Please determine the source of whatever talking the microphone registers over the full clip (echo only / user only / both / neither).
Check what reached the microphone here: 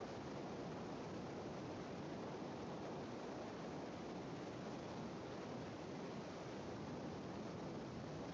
neither